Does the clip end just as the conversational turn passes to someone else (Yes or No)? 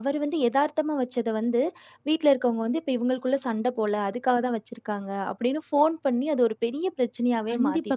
Yes